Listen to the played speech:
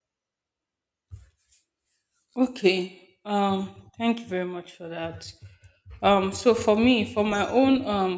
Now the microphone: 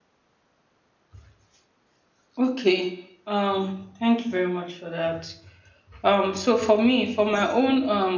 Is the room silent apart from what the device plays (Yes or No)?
Yes